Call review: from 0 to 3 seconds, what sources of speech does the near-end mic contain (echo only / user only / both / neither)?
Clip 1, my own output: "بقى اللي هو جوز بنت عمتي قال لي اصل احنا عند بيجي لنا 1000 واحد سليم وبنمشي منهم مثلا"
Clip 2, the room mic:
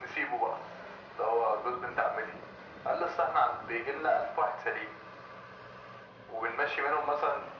echo only